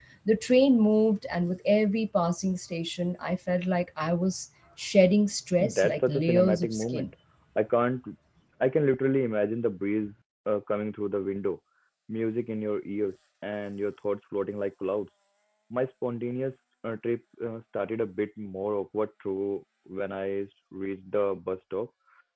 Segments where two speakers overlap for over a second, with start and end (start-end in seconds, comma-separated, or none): 5.6-7.1